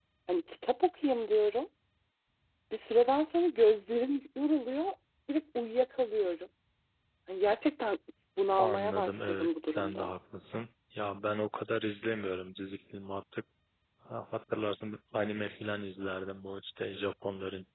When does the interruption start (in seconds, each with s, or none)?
8.6 s